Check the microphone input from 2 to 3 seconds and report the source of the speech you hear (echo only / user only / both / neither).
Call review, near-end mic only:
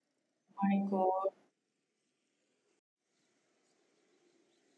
neither